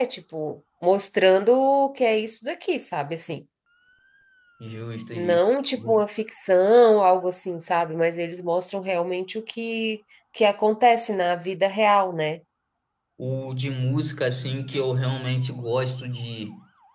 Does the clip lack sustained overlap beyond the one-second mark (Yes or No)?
Yes